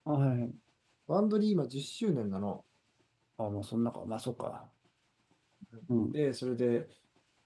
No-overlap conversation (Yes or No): Yes